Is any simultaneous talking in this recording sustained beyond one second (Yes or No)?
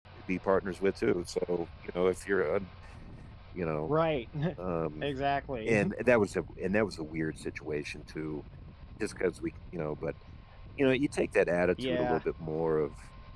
No